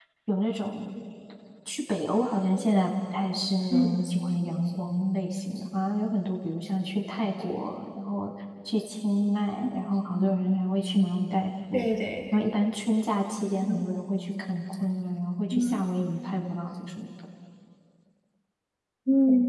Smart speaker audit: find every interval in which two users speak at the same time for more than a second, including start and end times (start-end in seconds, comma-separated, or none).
none